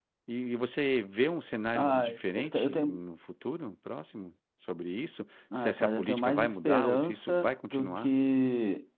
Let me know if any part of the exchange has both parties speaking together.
Yes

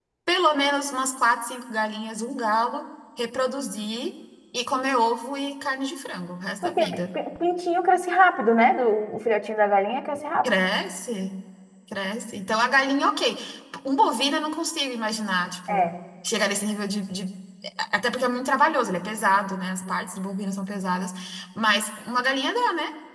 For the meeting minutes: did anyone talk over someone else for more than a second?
No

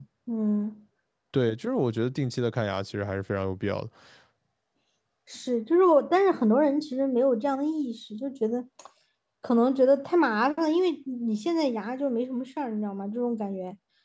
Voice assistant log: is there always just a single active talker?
Yes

